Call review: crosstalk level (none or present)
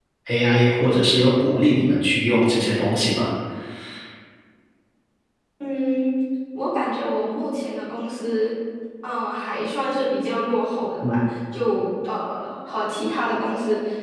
none